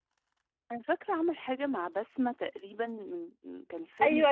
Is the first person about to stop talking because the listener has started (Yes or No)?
Yes